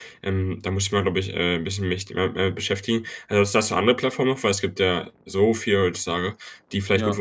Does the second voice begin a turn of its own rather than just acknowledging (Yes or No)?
No